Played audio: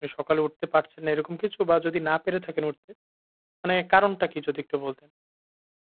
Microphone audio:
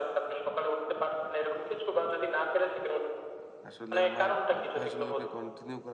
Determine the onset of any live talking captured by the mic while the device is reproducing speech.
3.7 s

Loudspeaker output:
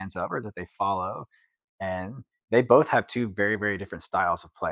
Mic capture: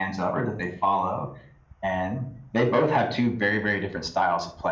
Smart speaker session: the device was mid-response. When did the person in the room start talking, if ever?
none

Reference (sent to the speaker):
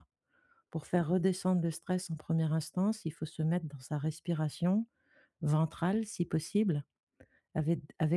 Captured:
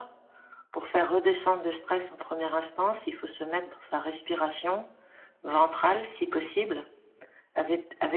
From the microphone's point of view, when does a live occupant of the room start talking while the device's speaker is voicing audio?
none

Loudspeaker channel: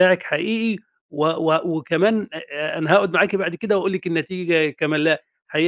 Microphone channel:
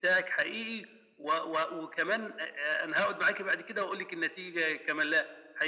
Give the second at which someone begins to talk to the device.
none

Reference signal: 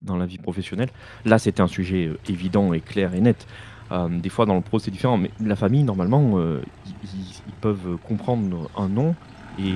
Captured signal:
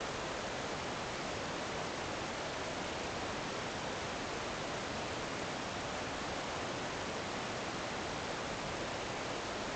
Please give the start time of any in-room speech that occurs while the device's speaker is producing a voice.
none

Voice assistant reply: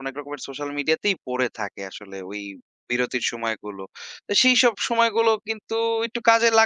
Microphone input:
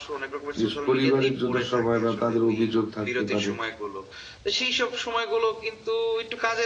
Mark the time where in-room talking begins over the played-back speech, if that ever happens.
0.6 s

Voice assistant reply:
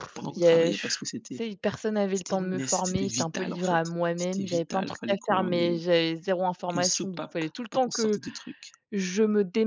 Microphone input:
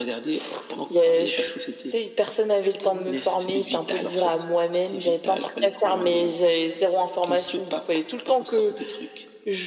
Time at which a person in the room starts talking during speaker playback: none

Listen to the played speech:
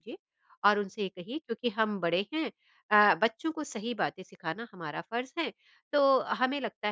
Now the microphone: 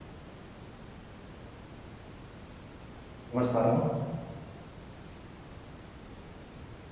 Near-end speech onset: 3.3 s

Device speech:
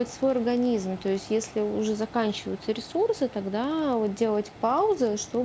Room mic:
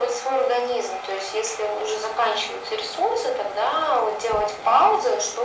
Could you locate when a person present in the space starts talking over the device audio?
none

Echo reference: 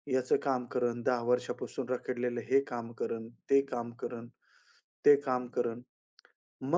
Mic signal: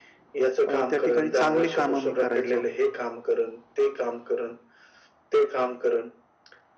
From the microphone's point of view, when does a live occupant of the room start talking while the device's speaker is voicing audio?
0.7 s

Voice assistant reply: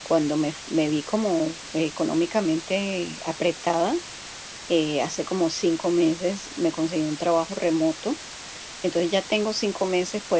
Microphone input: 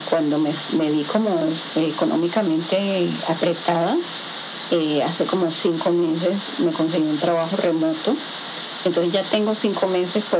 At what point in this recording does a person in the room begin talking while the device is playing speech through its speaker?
none

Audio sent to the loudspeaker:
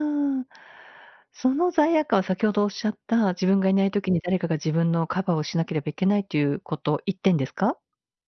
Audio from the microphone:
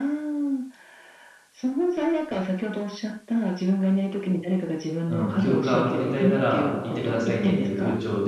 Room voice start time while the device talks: 5.0 s

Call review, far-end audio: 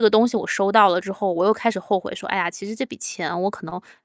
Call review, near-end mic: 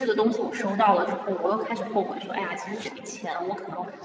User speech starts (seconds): none

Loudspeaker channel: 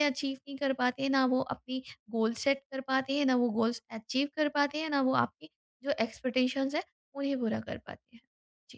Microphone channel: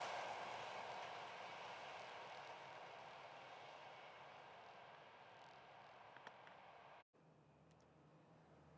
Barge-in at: none

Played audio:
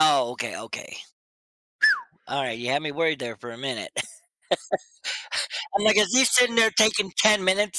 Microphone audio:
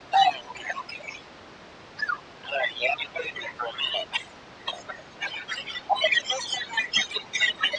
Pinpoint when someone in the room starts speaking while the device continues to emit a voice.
none

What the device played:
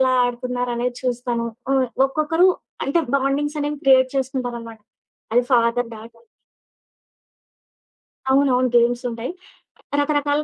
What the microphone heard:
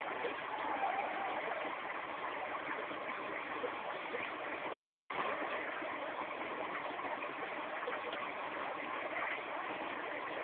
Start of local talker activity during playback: none

